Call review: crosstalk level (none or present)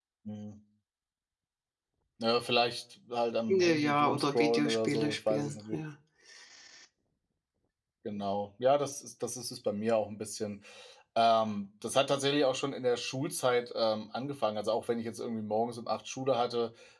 present